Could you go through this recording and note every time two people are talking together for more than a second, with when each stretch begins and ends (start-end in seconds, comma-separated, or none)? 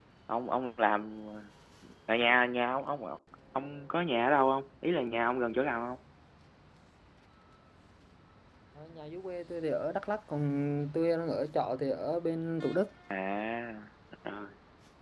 none